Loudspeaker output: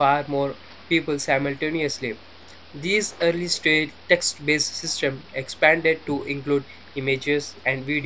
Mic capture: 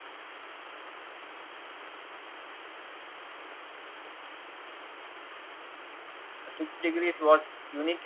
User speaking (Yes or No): Yes